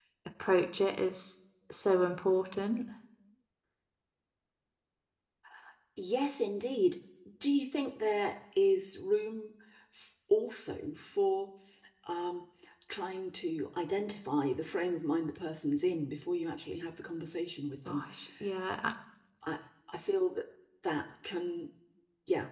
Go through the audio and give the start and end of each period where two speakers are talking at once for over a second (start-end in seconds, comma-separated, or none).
none